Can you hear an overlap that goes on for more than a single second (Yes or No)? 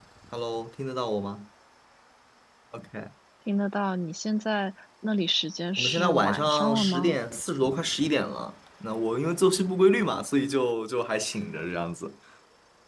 Yes